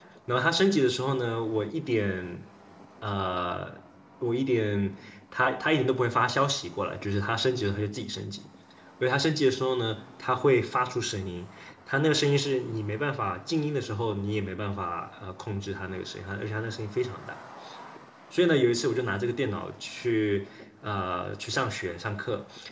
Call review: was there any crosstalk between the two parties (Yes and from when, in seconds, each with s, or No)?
No